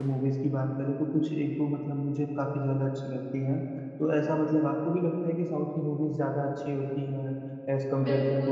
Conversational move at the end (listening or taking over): taking over